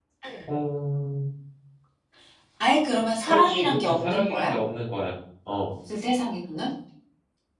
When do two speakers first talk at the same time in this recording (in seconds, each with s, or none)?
3.3 s